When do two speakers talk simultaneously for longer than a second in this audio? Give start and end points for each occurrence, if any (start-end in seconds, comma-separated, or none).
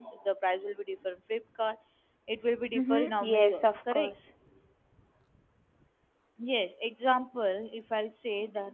2.8-4.1